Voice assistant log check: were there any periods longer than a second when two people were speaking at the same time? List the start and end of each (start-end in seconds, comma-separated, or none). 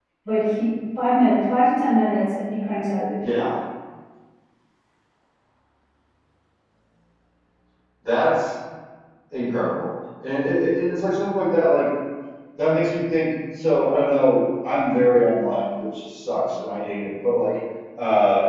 none